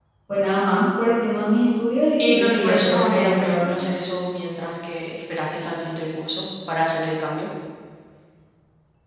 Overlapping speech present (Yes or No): Yes